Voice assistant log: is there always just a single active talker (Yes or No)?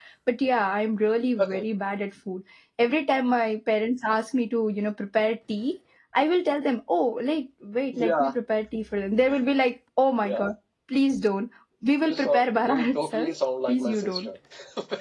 No